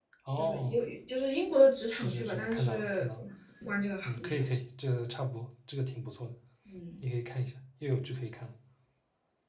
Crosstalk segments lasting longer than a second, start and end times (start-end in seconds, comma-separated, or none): 1.9-3.2